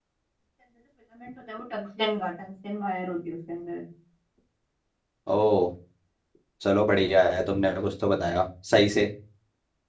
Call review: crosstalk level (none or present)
none